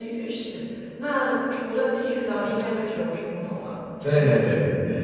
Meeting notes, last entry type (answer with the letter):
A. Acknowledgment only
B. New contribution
B